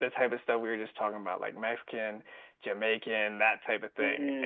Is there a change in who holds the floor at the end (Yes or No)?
Yes